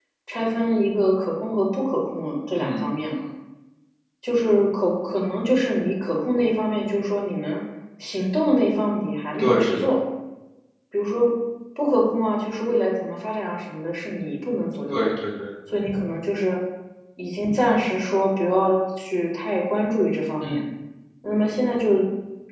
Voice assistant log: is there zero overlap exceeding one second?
Yes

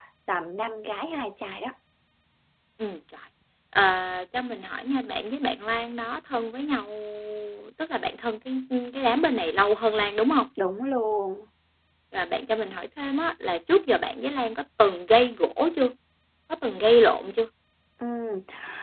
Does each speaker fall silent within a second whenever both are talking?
Yes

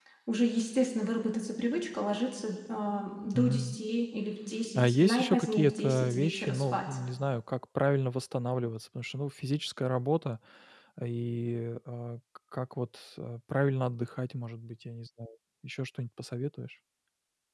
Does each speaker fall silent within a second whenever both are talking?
No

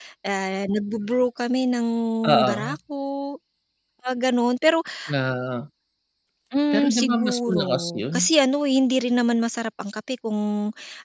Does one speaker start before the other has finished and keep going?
Yes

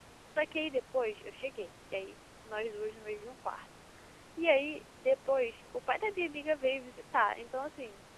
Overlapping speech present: No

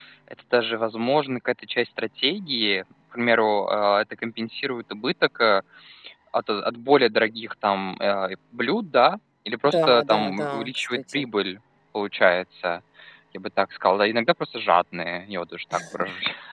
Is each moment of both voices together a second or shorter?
No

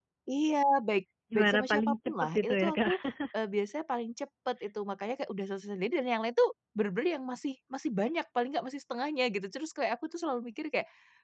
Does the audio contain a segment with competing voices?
Yes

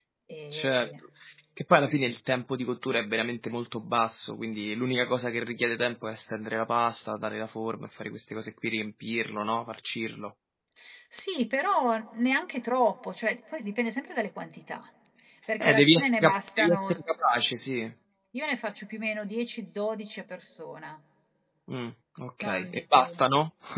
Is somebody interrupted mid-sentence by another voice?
Yes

